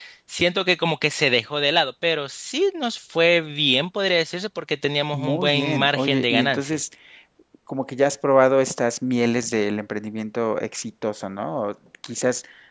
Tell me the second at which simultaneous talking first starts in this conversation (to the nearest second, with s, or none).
5 s